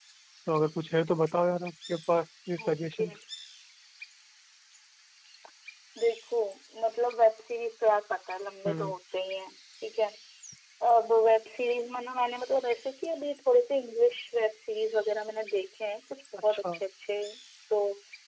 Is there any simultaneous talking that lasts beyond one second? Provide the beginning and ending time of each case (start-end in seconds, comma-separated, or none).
none